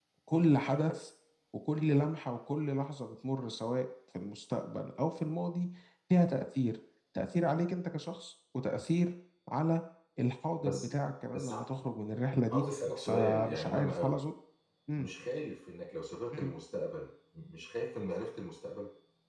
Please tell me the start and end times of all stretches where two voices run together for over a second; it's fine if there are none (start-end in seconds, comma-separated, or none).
12.5-14.2